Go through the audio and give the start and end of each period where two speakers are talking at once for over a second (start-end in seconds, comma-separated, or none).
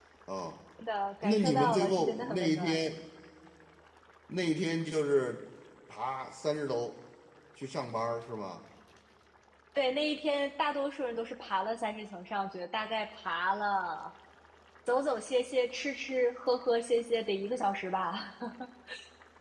1.2-2.9